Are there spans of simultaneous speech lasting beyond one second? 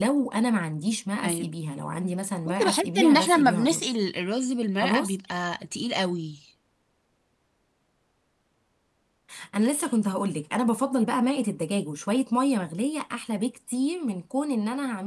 Yes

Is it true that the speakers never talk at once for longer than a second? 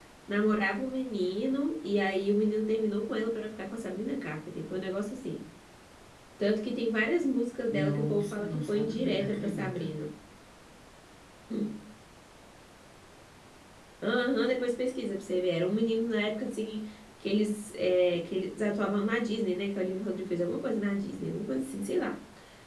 No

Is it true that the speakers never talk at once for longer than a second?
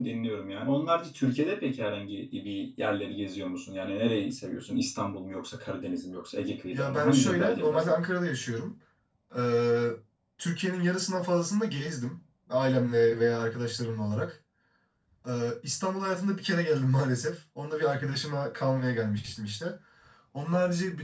No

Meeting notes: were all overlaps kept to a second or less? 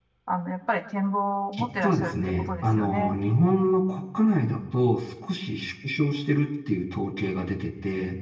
No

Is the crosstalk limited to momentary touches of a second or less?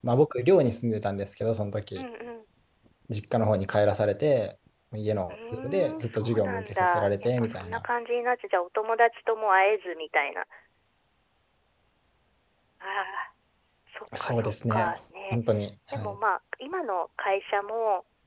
No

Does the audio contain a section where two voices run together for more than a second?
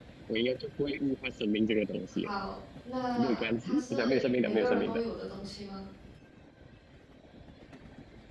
Yes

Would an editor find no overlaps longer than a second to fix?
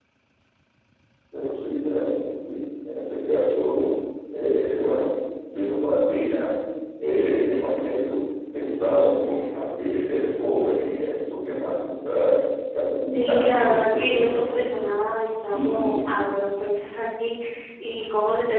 No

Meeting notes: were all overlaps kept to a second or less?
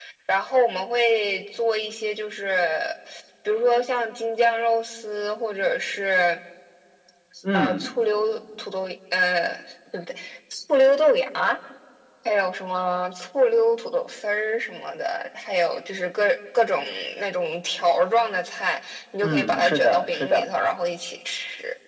No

